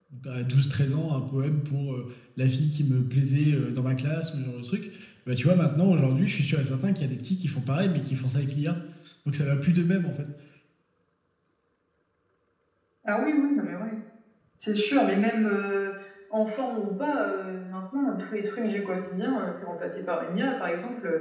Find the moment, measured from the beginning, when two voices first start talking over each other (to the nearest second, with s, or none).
none